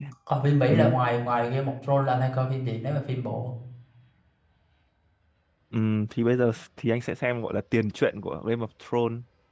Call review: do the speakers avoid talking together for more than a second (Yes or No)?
Yes